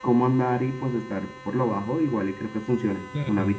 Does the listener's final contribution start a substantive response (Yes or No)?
Yes